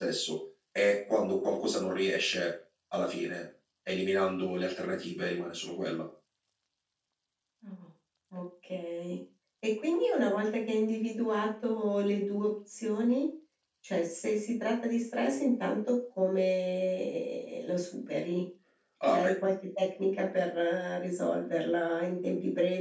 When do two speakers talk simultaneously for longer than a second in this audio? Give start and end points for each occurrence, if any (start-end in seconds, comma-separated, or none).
none